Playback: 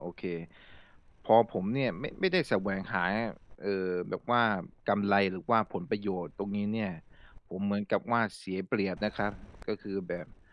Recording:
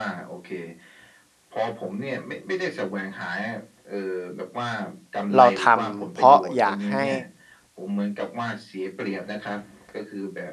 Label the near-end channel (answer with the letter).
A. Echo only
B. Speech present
B